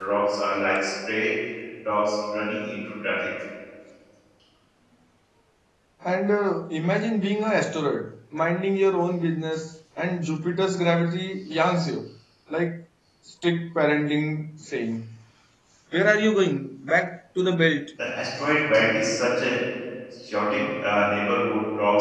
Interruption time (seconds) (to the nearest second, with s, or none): none